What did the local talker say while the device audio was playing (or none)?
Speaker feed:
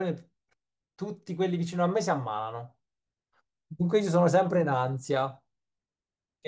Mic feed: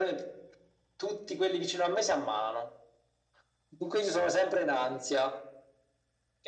none